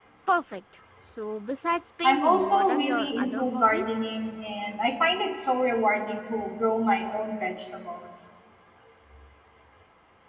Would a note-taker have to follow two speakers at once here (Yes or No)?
Yes